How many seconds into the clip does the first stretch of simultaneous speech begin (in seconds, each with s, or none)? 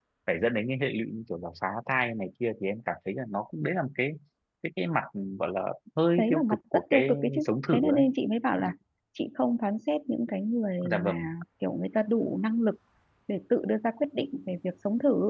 6.2 s